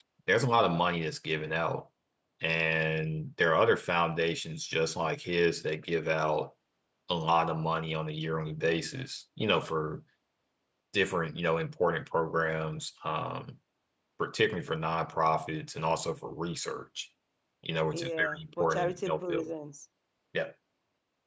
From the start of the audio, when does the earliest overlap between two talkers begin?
17.9 s

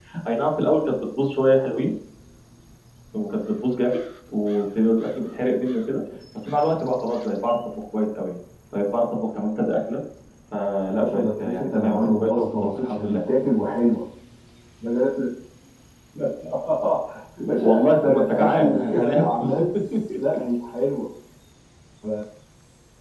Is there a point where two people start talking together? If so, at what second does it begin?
10.9 s

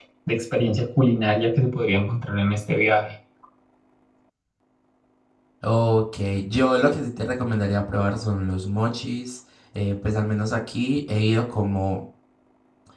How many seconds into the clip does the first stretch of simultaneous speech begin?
none

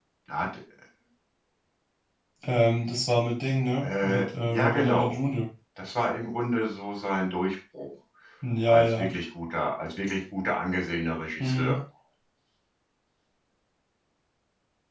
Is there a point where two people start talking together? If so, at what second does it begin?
3.8 s

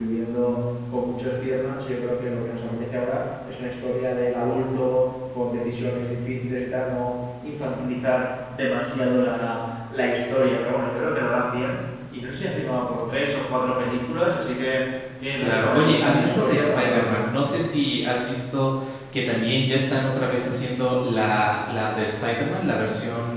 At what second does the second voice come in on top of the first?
15.4 s

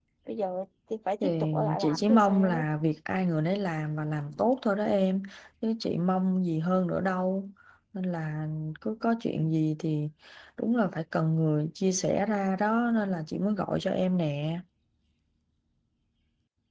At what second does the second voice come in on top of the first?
1.2 s

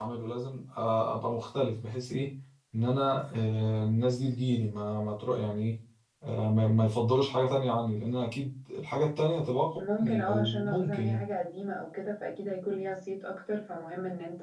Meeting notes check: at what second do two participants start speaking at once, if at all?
9.8 s

